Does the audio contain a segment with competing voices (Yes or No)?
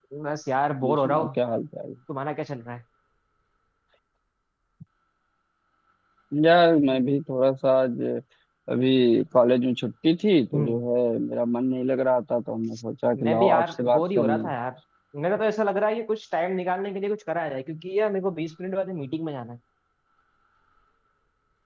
Yes